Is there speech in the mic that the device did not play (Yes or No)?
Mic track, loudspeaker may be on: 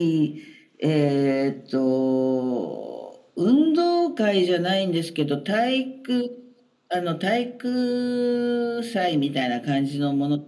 No